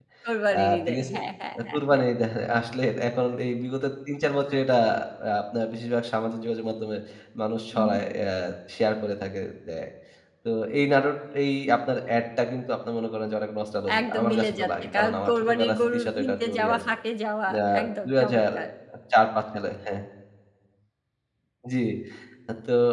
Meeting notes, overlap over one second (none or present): present